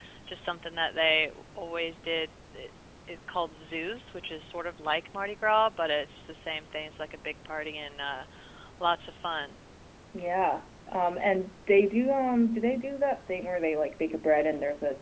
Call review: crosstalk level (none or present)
none